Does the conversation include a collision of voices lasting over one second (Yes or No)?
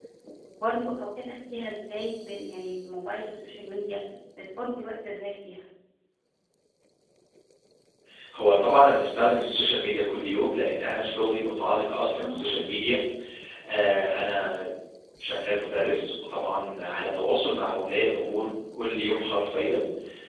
No